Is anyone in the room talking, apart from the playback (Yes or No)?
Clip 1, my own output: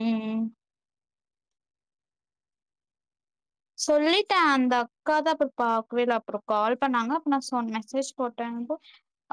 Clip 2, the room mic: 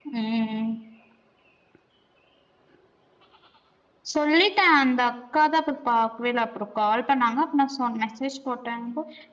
No